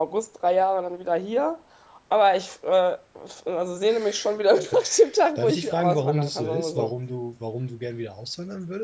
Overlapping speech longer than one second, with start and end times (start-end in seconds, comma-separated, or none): 5.3-6.9